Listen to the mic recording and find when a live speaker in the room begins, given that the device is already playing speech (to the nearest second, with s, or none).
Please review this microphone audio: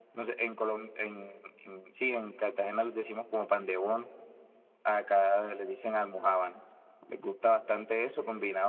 none